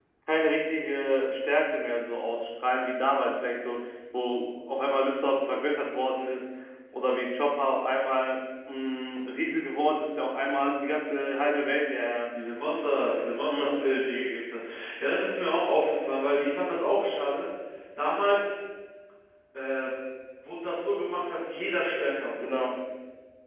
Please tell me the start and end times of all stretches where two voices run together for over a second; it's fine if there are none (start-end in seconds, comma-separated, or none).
none